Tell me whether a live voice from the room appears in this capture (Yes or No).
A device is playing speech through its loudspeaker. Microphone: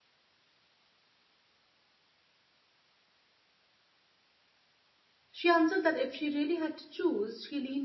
Yes